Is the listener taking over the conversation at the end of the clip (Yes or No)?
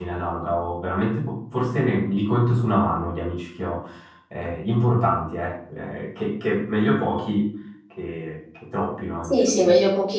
Yes